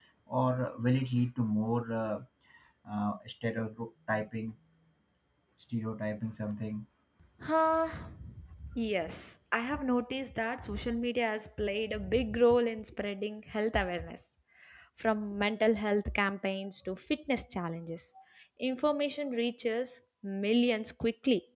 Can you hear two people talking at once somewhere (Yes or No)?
No